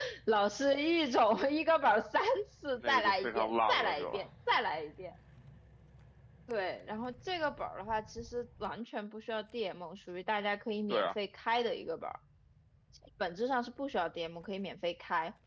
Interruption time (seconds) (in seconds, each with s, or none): 2.8 s